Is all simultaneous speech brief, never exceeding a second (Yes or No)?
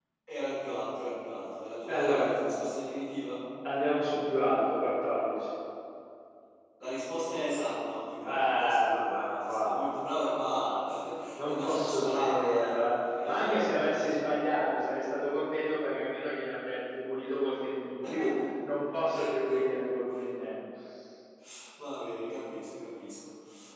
No